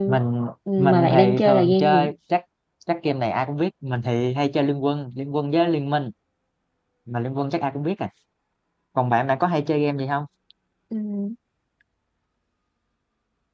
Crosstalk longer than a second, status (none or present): present